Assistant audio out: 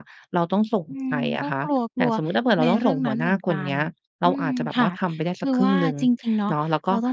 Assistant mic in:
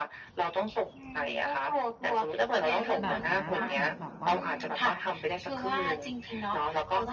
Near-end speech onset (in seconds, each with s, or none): 3.0 s